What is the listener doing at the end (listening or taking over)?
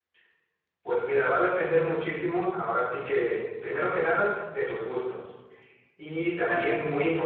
listening